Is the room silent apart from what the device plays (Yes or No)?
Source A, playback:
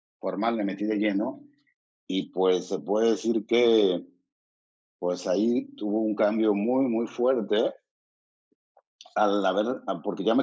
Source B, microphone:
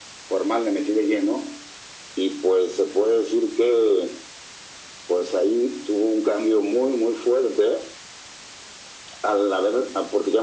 Yes